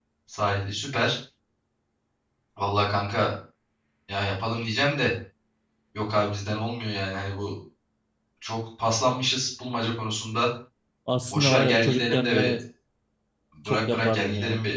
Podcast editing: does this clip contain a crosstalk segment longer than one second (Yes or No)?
Yes